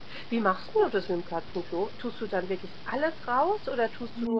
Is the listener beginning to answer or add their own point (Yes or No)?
Yes